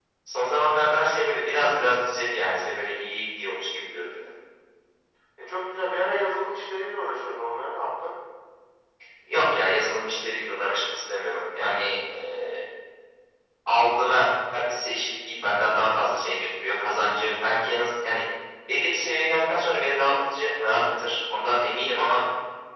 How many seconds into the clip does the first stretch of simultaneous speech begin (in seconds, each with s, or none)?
none